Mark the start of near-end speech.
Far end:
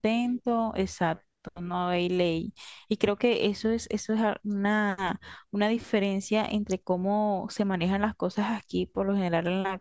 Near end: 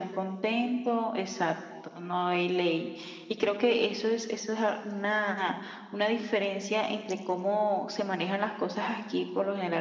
none

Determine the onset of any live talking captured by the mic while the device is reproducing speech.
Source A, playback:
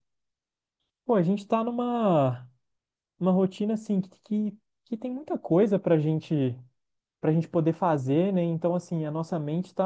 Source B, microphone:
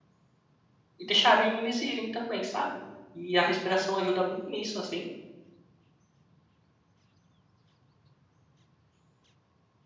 1.0 s

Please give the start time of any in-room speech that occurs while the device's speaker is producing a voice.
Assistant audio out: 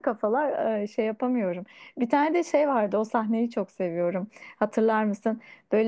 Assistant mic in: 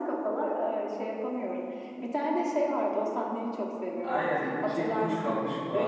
4.0 s

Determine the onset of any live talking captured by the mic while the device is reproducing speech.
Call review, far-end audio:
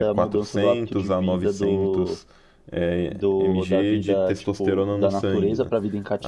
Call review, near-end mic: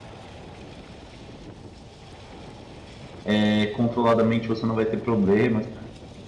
3.2 s

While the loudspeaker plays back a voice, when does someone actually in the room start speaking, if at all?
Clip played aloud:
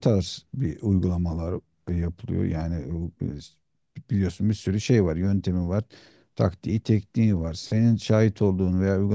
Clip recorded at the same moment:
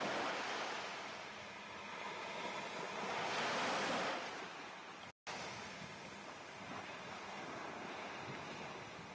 none

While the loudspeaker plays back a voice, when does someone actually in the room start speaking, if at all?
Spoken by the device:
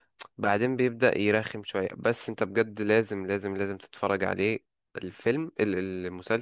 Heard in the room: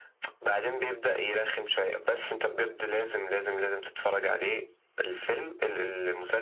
none

